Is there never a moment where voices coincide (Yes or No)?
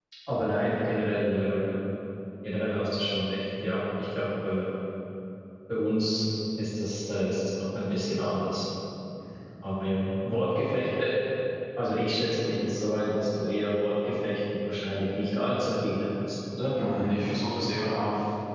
Yes